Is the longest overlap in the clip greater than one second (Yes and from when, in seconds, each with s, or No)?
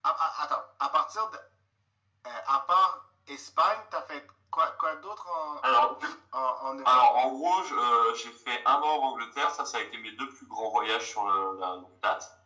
No